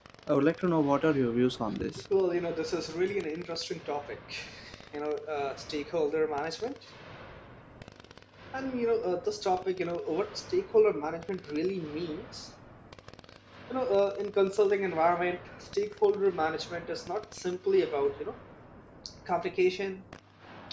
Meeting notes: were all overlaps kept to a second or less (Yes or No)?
Yes